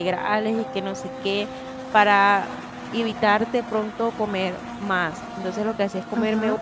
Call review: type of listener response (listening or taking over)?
listening